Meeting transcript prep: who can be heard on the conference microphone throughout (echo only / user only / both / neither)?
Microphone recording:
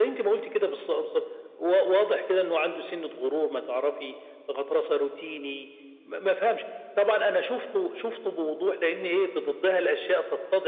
echo only